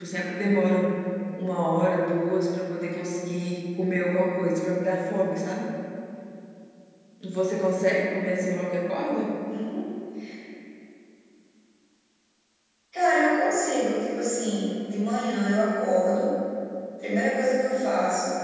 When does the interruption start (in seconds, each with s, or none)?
none